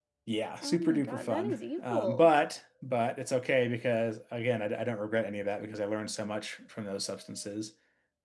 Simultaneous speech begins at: 0.6 s

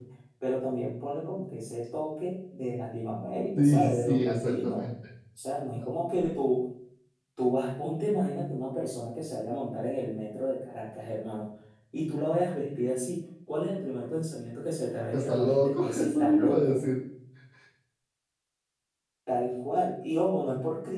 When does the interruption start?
3.5 s

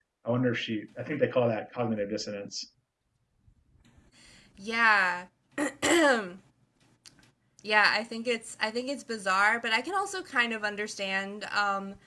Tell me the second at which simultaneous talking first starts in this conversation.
none

